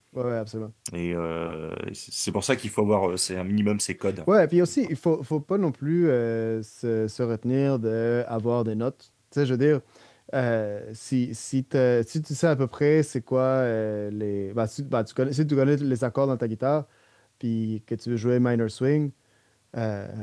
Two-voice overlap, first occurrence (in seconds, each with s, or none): none